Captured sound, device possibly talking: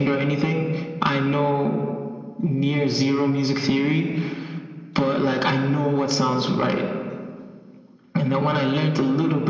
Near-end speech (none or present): none